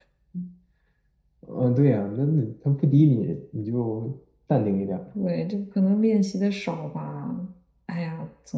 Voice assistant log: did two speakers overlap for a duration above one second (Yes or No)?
No